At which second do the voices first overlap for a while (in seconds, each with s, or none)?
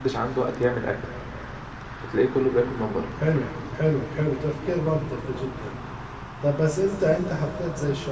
none